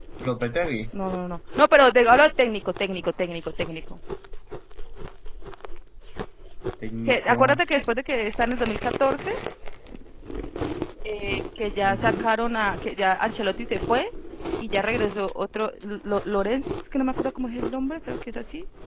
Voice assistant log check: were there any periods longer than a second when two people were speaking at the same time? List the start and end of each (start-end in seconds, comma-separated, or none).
none